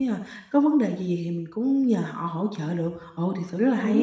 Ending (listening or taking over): taking over